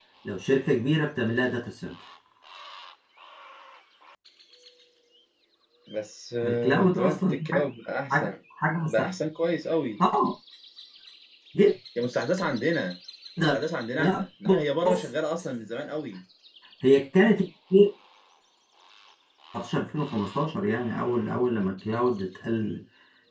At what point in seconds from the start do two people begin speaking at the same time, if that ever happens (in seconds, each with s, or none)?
6.4 s